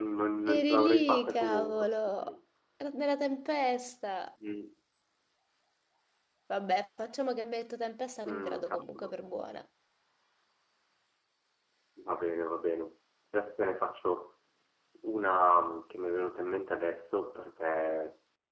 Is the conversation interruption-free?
No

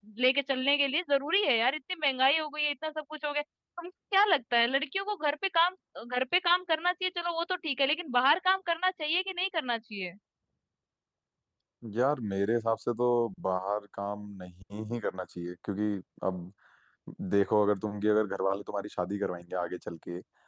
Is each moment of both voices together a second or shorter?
Yes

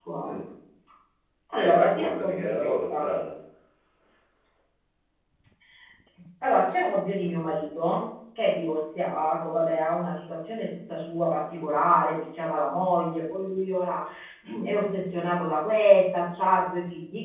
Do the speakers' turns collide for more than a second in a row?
Yes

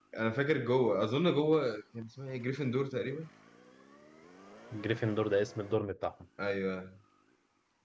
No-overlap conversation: Yes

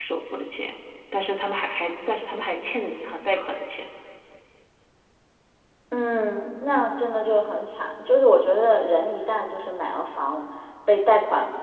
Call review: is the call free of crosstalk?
Yes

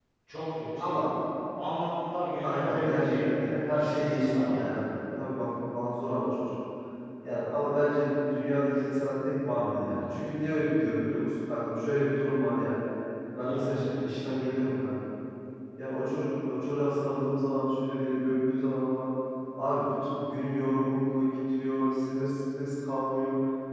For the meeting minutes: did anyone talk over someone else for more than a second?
Yes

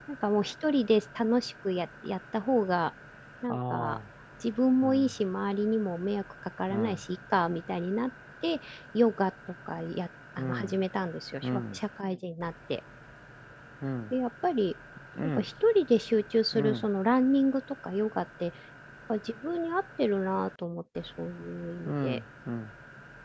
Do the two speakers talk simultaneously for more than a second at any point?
No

